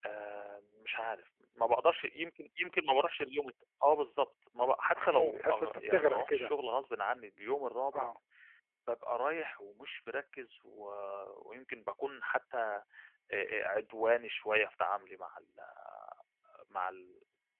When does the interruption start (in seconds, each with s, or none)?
5.0 s